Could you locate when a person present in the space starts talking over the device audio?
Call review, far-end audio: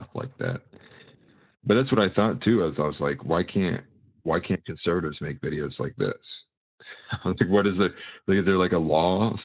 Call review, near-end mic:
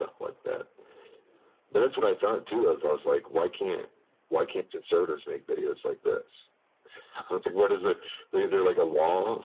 none

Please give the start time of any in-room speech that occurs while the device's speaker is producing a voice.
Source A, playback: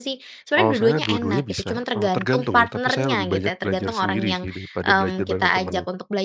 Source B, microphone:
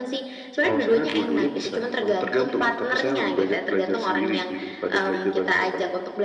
none

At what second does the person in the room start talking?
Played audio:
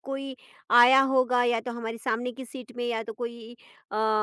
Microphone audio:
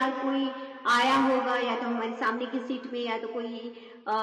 none

